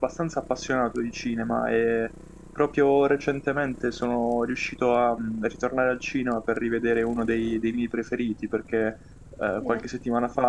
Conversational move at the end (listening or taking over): listening